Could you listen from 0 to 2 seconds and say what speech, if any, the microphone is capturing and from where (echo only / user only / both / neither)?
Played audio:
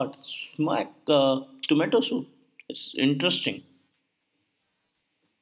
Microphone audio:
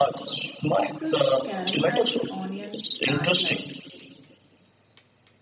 both